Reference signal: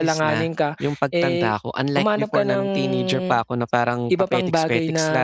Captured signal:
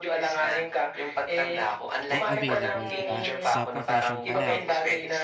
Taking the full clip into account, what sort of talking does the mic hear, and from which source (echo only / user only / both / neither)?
both